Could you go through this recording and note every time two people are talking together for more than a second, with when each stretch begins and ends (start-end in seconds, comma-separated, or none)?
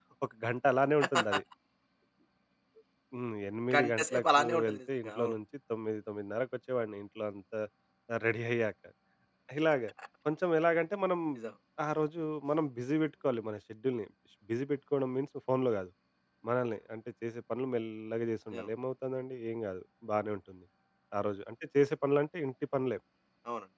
3.7-5.3